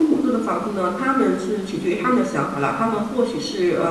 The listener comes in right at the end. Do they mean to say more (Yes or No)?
No